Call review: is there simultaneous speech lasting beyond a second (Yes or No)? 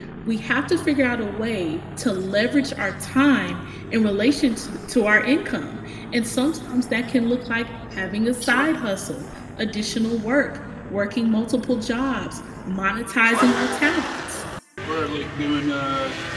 No